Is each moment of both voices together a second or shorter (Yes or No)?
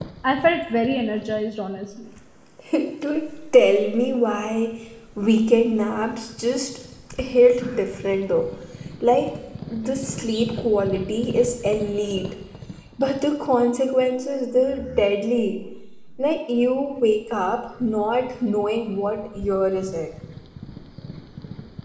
Yes